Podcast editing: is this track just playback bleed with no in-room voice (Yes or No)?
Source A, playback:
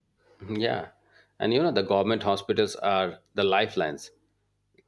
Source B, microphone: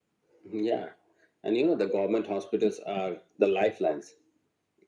Yes